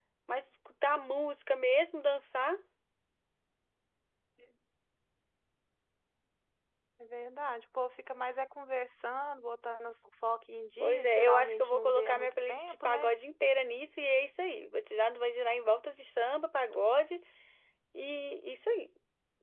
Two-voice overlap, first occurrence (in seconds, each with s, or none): 10.8 s